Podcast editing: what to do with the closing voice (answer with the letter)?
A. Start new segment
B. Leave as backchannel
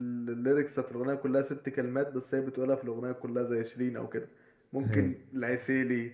B